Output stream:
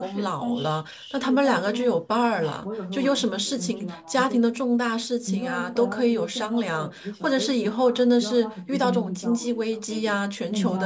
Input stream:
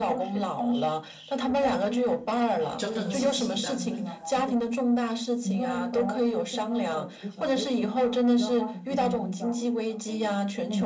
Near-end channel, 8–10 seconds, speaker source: echo only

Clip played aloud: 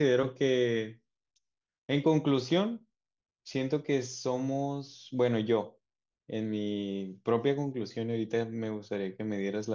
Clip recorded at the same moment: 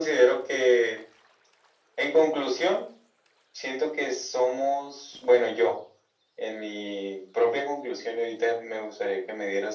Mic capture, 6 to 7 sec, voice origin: echo only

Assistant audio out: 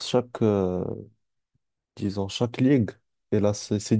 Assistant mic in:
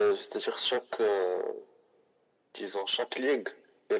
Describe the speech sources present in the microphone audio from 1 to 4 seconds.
echo only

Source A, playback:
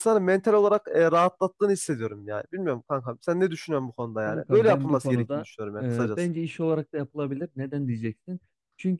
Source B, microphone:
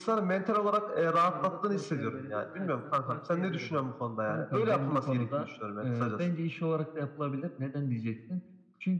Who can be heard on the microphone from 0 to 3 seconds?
both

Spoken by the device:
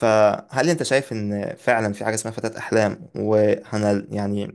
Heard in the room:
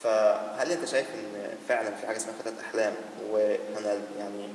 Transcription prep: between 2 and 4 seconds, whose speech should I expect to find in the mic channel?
echo only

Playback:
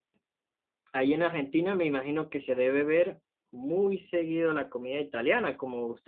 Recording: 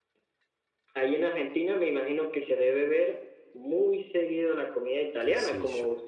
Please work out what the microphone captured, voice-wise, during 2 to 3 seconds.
echo only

